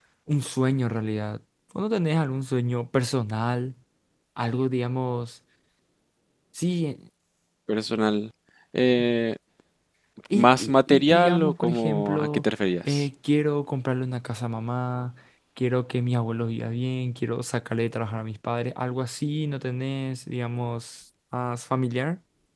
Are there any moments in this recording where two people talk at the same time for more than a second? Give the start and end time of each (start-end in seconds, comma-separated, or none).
10.3-12.4